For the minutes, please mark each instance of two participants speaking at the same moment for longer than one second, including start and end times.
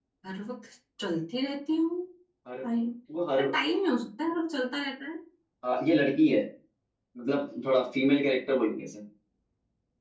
none

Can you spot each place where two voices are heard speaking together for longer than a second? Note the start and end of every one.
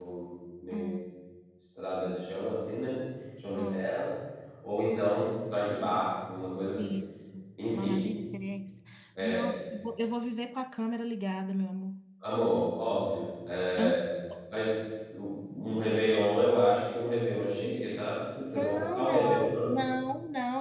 18.4-19.7

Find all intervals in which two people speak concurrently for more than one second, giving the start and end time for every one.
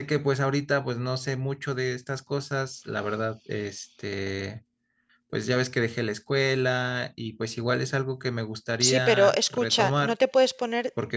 8.9-10.2

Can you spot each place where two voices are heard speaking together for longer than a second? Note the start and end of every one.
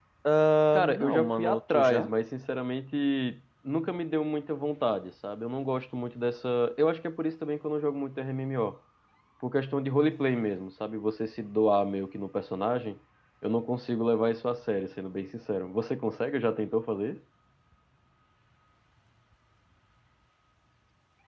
0.7-2.1

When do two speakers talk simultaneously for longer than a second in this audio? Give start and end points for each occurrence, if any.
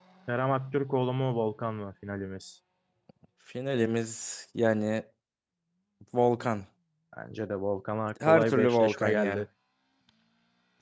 8.2-9.4

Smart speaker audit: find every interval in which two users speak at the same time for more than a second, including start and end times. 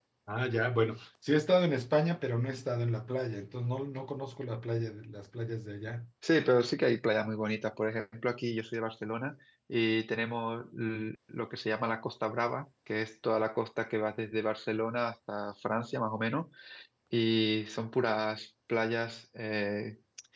none

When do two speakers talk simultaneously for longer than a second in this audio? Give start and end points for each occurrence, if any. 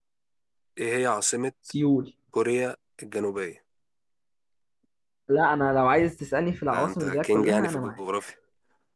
6.7-7.9

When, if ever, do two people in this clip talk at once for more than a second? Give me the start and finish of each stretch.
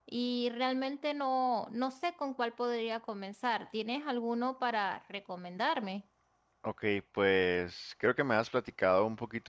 none

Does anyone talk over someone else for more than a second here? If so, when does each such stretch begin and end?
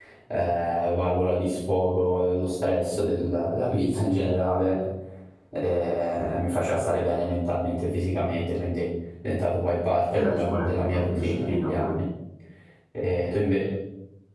10.1-12.0

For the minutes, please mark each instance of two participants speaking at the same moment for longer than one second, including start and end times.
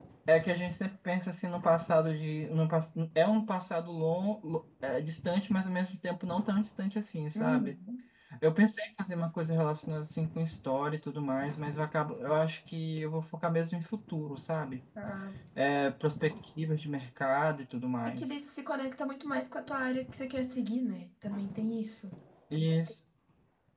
none

